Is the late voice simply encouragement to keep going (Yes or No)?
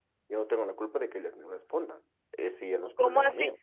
No